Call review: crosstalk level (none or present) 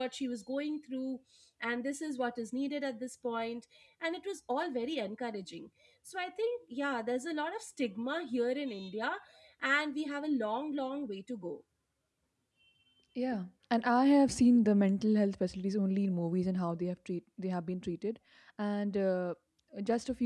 none